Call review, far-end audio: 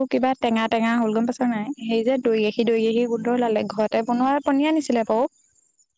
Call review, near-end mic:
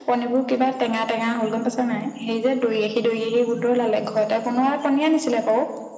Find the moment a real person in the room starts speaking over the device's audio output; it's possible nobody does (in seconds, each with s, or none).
none